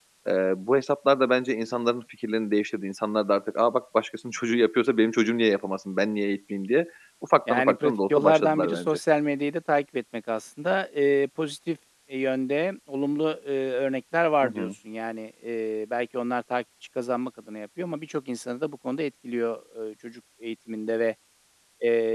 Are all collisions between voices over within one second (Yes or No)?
No